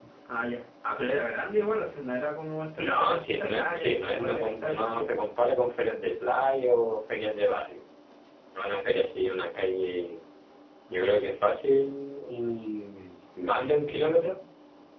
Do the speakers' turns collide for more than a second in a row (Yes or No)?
Yes